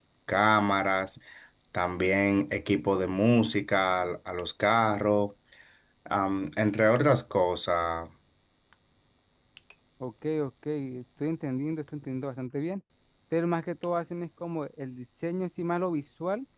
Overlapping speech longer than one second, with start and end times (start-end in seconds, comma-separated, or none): none